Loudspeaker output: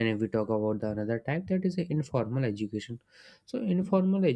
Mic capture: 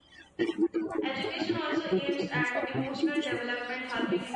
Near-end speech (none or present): present